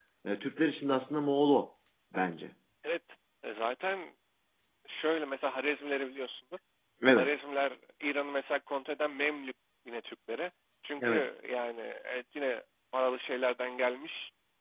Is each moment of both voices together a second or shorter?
Yes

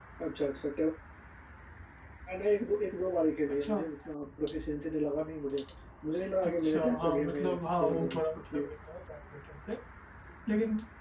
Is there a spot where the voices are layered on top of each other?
Yes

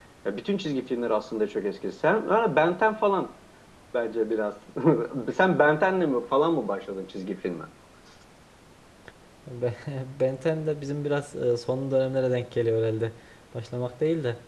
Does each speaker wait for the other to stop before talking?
Yes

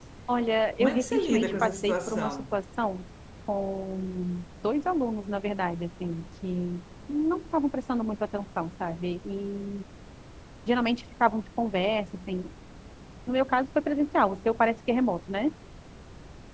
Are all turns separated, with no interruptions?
No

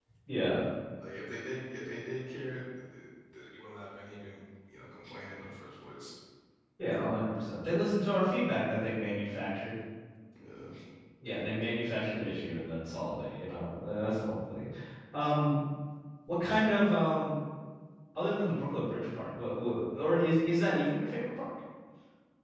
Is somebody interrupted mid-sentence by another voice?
No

